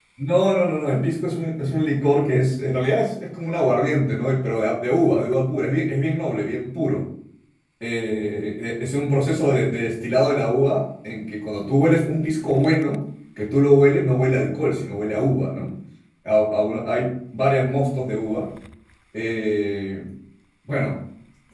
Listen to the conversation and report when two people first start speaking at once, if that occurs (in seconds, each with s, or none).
none